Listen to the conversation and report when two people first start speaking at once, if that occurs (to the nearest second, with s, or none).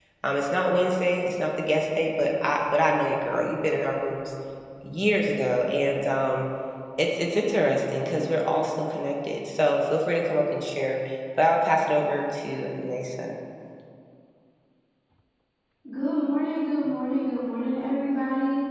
none